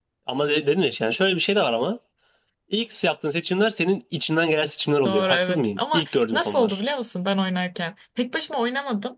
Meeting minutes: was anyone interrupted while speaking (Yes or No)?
Yes